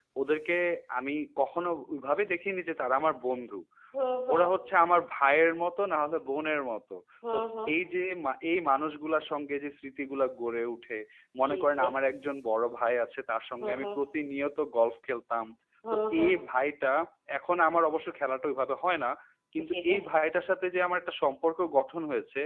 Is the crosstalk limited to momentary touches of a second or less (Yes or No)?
Yes